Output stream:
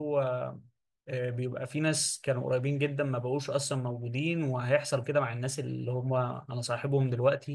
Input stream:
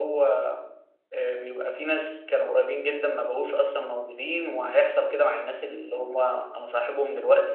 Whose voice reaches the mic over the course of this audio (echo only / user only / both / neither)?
echo only